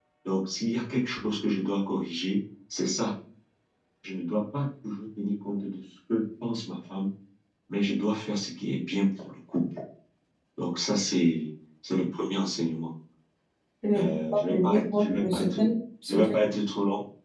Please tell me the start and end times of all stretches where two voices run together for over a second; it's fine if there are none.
14.0-15.6

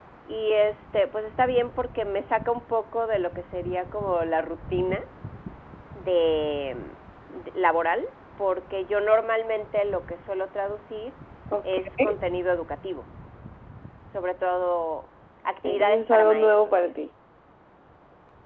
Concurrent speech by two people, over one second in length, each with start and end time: 15.6-16.9

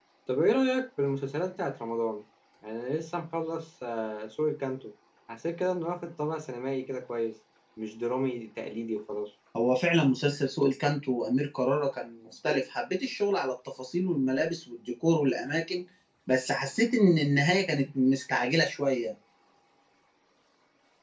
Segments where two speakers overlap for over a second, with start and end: none

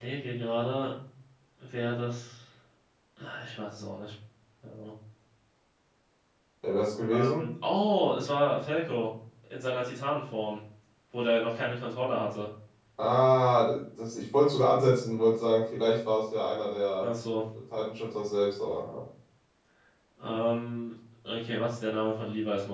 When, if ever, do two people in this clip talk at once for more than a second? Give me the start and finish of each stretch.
none

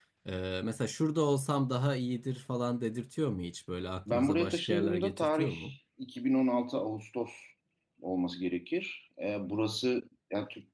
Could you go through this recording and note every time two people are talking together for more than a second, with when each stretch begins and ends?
4.1-5.5

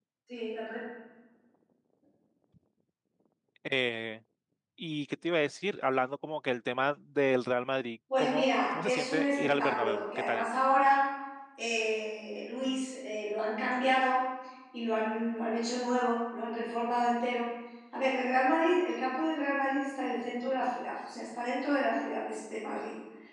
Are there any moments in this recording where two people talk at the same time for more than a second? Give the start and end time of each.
8.2-10.5

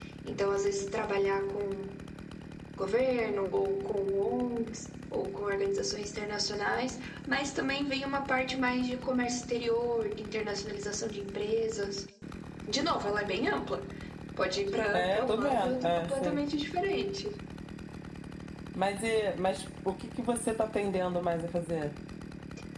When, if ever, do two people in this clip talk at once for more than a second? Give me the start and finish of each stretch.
14.9-16.4

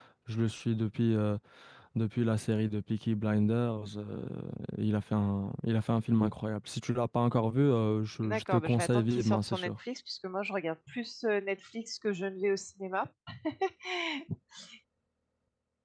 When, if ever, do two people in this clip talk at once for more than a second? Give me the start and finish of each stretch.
8.2-9.7

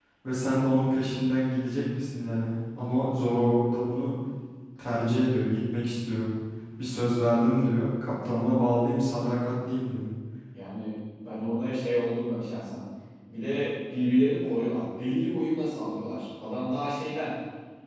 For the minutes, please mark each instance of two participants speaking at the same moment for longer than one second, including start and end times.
none

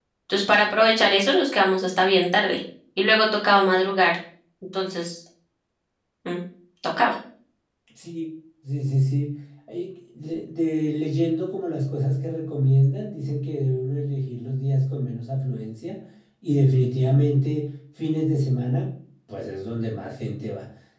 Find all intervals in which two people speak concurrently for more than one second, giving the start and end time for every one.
none

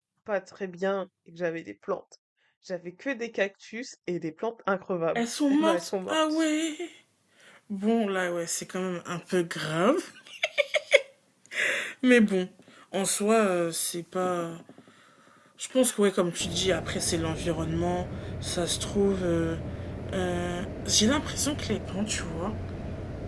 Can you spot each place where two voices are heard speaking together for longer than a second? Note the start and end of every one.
5.2-6.4

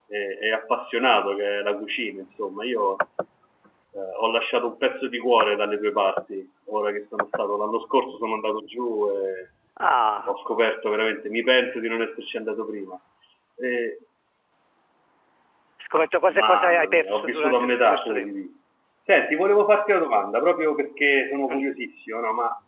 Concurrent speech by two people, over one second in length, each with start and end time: 16.3-18.3

